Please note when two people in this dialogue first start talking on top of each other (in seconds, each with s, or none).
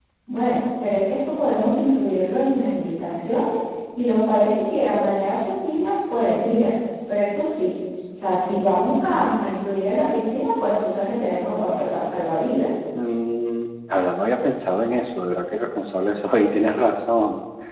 none